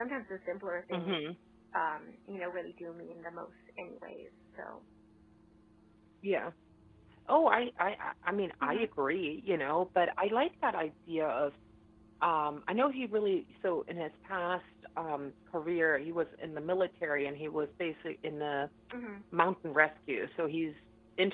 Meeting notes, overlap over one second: none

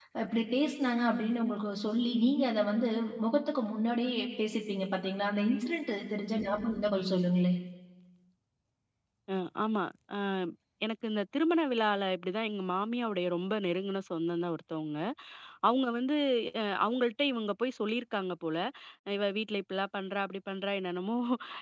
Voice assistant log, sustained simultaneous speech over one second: none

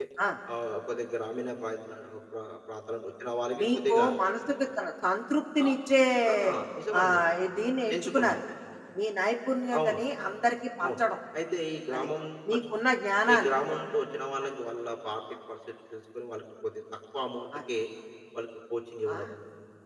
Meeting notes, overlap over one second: none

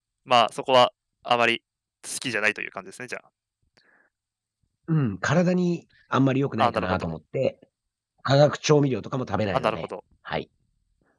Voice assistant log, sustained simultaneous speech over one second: none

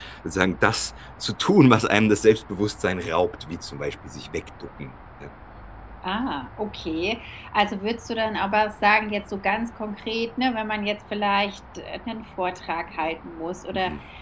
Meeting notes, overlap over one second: none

